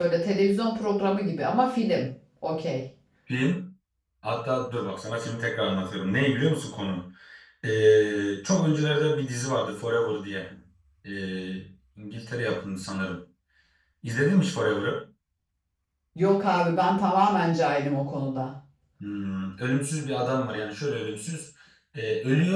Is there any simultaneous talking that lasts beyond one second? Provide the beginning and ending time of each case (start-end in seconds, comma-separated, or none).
none